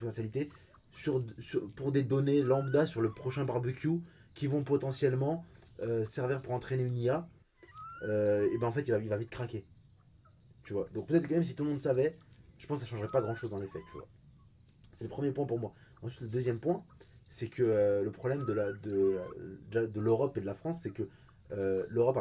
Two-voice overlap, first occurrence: none

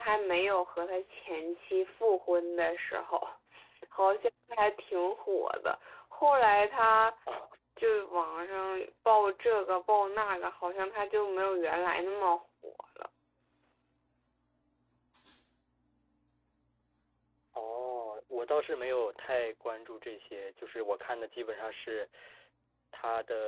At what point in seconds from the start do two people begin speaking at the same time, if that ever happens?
none

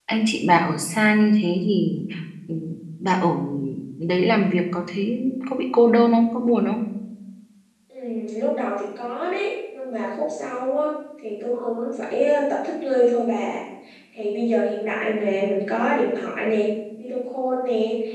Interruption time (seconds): none

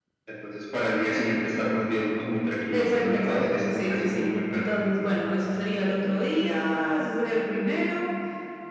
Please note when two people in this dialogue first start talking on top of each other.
3 s

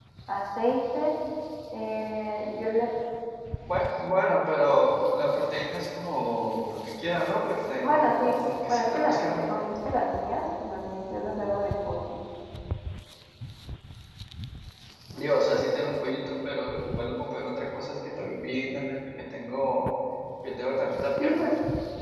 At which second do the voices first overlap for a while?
8 s

